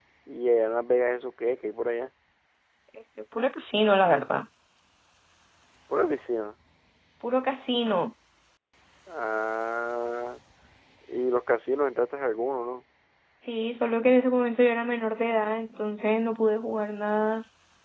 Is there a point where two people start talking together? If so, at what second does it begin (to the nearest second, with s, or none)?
none